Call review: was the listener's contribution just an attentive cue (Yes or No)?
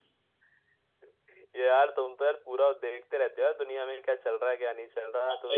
Yes